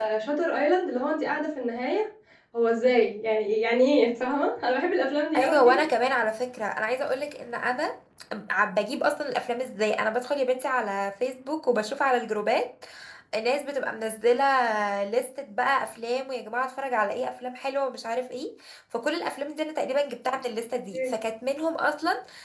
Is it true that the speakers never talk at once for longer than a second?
Yes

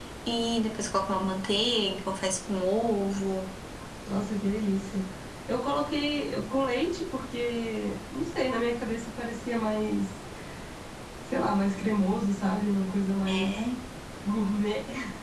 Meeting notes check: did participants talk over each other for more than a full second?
No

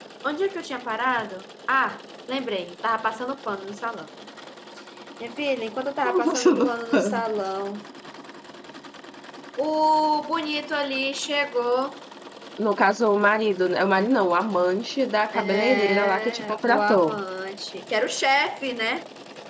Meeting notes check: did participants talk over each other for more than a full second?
Yes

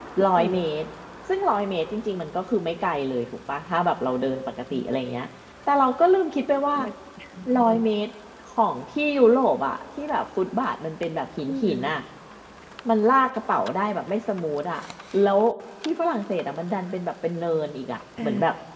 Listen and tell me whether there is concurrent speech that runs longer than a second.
No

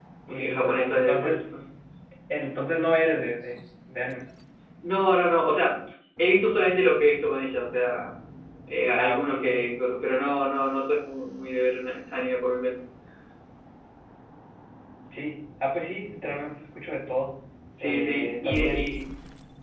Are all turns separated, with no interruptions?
No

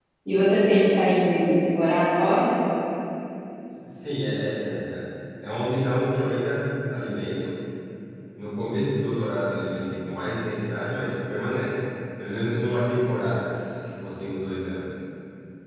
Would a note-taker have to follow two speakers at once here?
No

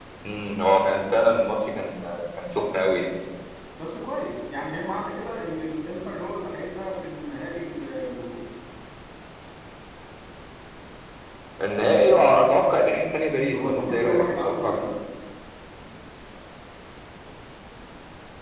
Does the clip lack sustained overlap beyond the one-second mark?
No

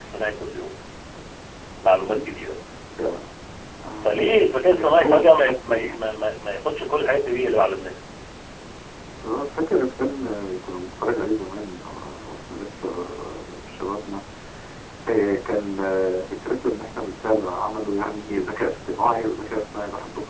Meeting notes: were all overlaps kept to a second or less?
No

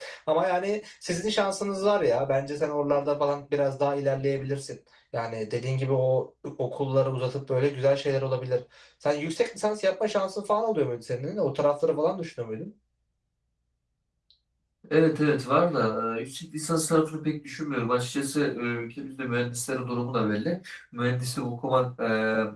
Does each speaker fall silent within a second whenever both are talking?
Yes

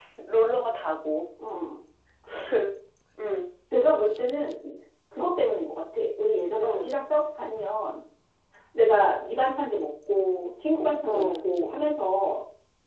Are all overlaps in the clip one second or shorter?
Yes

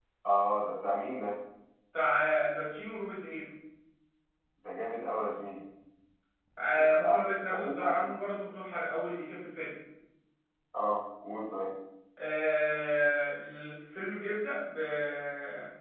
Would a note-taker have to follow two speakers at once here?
Yes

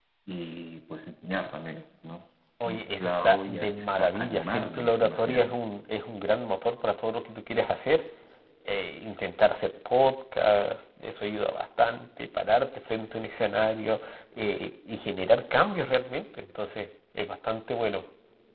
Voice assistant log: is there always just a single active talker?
No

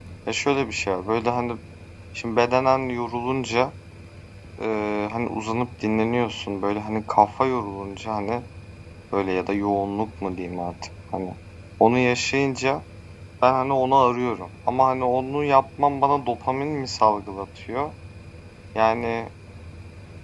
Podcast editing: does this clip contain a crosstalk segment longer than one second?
No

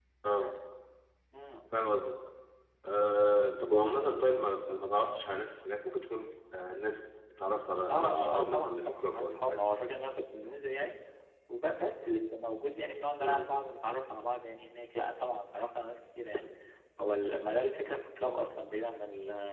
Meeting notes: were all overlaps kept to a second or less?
No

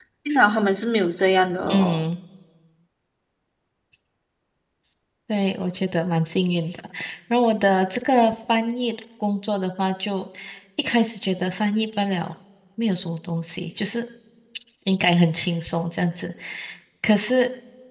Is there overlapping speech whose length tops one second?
No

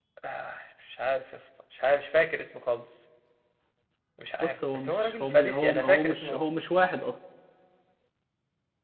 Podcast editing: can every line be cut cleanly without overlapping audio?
No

